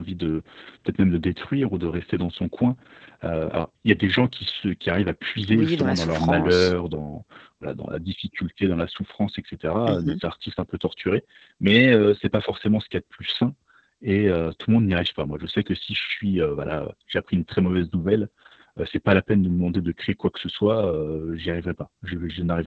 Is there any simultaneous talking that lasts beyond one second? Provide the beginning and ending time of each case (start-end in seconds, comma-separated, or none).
5.5-6.7